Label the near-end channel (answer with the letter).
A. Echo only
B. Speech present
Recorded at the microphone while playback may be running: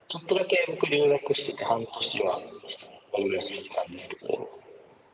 A